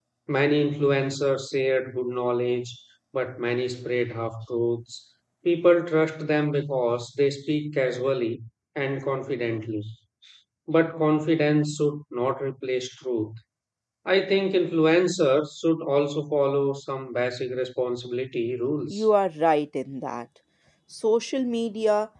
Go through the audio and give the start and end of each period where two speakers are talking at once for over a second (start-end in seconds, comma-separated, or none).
none